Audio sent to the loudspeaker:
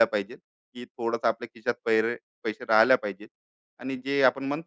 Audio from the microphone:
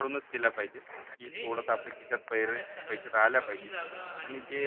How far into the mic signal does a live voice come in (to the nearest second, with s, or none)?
1 s